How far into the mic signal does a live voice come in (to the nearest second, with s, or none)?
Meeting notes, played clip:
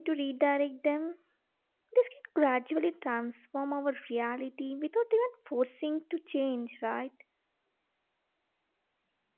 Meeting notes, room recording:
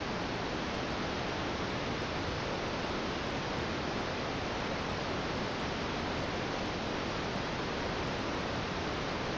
none